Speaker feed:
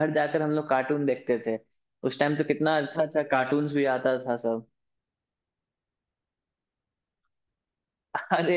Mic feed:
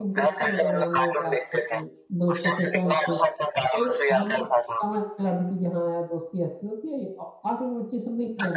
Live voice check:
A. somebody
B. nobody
A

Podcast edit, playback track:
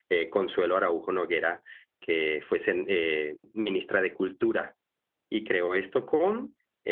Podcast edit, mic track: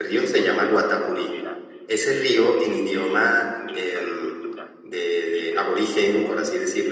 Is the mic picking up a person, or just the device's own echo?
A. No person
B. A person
B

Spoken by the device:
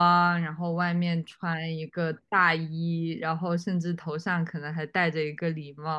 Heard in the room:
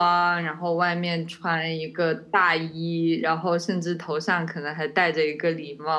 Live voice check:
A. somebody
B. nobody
B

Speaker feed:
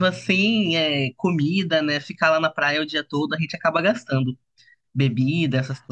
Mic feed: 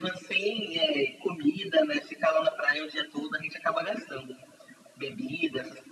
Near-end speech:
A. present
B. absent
B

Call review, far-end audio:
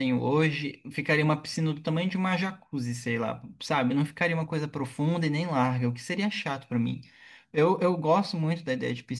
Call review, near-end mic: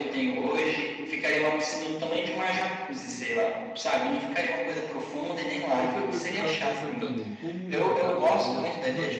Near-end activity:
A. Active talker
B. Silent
A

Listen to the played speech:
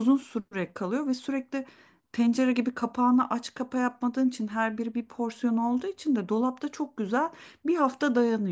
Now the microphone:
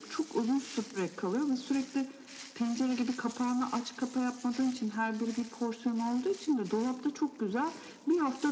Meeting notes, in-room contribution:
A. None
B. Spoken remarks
A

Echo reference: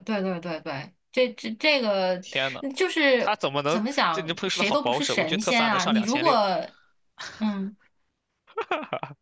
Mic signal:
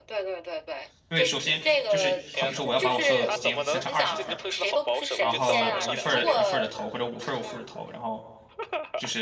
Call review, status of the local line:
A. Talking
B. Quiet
A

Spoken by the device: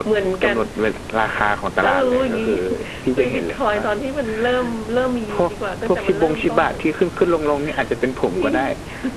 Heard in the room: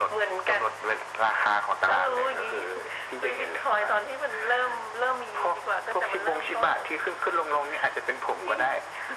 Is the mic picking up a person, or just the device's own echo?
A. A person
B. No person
B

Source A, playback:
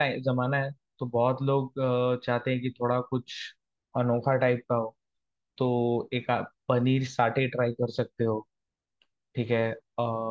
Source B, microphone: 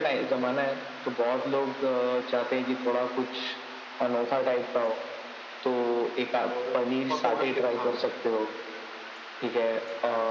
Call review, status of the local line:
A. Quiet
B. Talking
B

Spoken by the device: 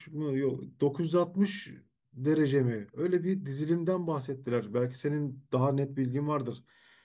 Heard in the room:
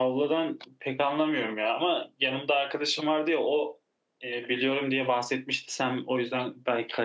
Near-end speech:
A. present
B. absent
A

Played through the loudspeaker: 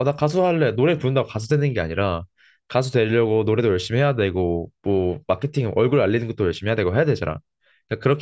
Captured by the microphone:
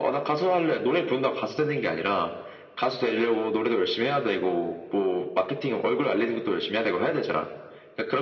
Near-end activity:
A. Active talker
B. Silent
B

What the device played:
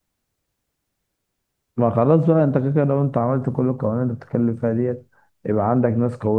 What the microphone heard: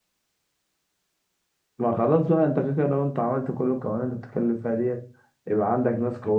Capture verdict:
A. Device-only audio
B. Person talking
A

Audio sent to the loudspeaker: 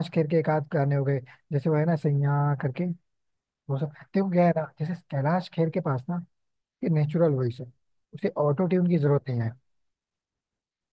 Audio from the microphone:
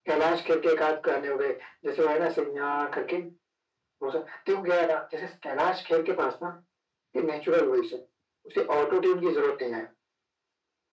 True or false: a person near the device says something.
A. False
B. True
A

